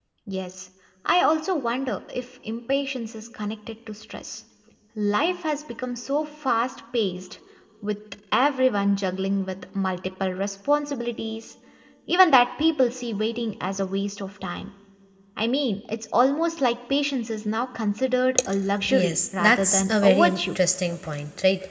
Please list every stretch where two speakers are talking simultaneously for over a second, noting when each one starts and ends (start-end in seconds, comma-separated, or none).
18.9-20.4